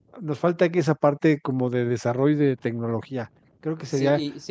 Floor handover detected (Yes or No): Yes